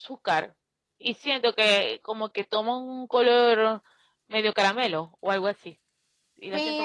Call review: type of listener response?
taking over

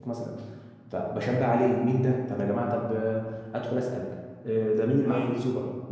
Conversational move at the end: listening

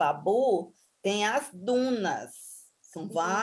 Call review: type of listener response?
listening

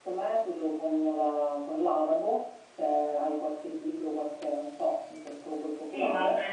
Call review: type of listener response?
taking over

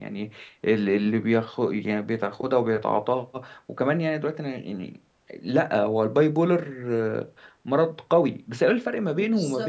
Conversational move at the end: taking over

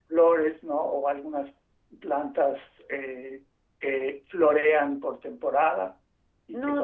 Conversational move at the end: taking over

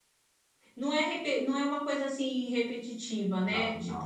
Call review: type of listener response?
listening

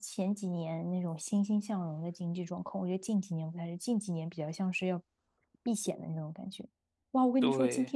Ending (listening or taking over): listening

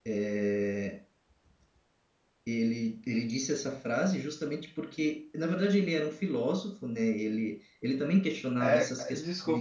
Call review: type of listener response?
taking over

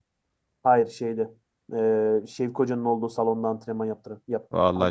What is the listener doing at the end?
taking over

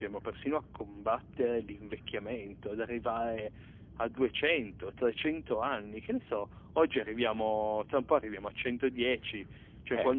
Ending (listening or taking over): listening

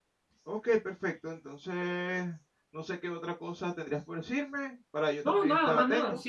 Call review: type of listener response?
taking over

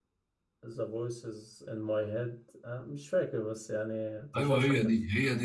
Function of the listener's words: taking over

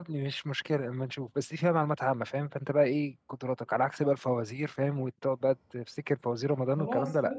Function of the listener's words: taking over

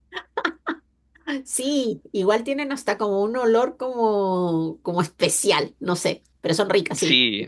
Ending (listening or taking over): taking over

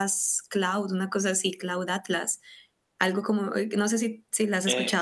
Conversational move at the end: taking over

